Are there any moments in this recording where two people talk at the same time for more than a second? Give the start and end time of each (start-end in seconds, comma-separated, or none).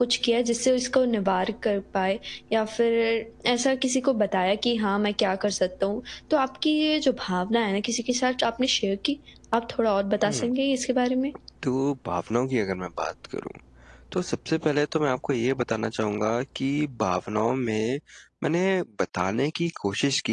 none